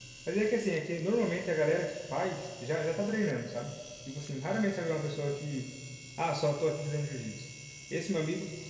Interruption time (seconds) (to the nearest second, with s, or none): none